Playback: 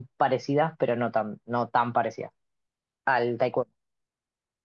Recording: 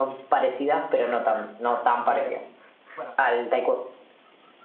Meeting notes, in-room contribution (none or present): present